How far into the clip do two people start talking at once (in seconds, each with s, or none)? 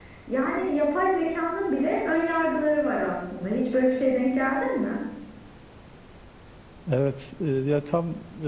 none